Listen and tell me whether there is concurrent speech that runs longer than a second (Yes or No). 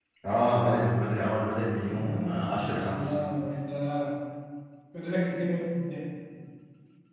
Yes